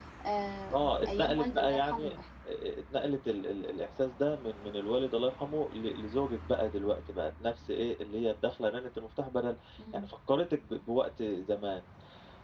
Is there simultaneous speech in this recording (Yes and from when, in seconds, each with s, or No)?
Yes, from 0.7 s